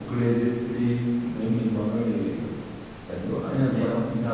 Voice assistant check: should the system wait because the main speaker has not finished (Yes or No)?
Yes